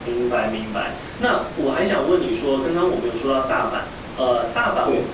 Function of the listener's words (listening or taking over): listening